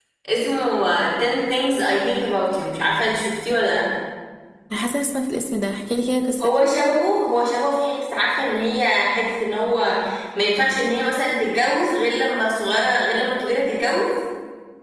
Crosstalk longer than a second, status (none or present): none